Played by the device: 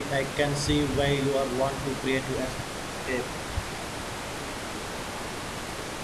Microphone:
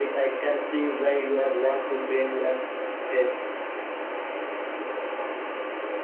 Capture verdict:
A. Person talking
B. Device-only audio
B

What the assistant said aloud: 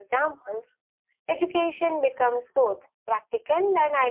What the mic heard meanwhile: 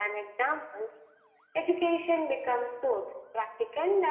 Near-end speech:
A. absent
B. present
A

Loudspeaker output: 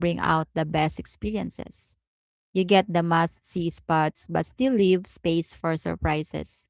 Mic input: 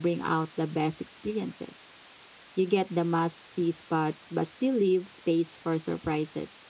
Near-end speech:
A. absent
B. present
A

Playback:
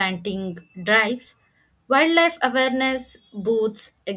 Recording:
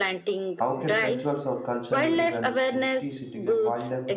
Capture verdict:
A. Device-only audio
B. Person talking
B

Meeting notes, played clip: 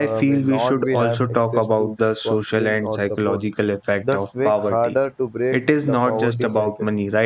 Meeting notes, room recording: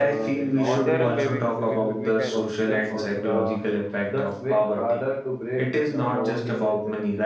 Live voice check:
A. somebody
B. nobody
A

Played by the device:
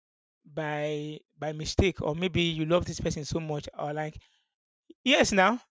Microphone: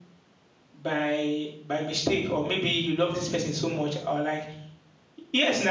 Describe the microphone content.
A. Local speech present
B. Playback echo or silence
B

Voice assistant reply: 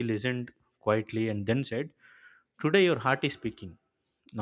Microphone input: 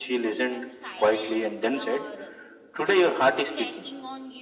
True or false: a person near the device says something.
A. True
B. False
A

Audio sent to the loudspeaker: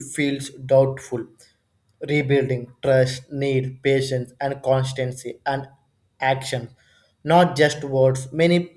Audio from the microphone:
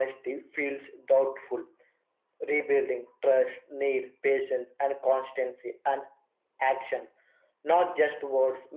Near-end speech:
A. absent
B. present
A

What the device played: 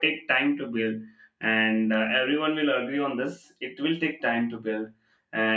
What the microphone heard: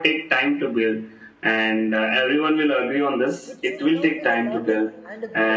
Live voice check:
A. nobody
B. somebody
B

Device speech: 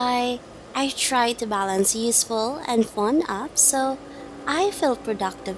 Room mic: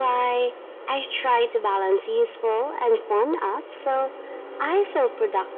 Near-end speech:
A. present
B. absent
B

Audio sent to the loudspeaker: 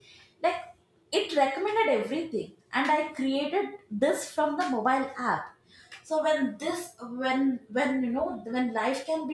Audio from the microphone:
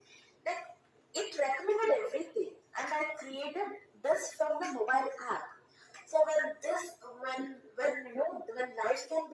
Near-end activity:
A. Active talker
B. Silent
B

